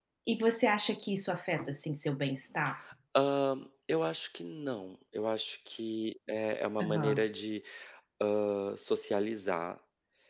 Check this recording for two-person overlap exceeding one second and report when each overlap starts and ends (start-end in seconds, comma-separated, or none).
none